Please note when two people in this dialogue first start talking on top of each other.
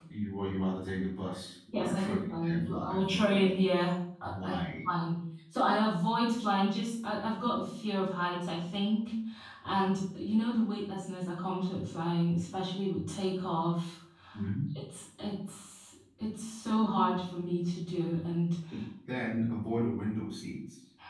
1.7 s

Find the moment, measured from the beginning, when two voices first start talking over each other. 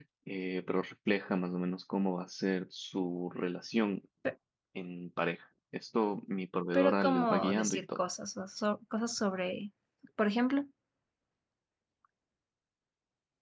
6.7 s

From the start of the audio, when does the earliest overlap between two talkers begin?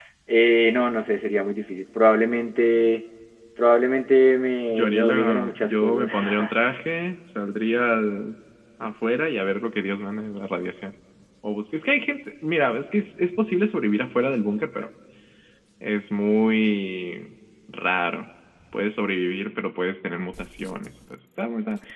4.7 s

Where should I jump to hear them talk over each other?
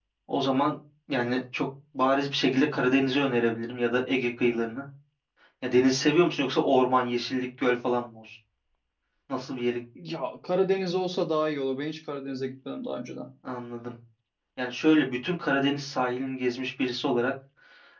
none

